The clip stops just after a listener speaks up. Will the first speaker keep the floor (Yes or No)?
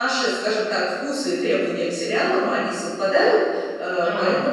Yes